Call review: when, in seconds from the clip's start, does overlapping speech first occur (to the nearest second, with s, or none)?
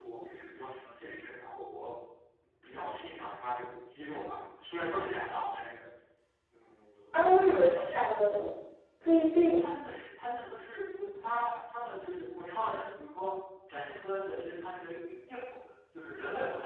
7 s